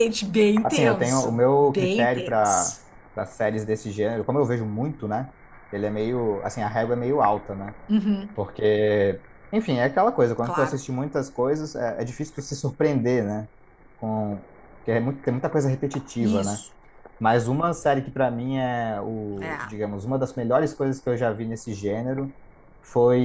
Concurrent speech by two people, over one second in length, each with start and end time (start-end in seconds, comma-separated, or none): 0.6-2.7